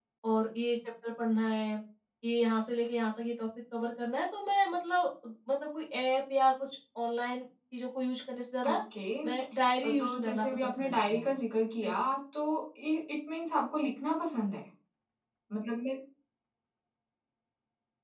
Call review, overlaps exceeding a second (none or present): present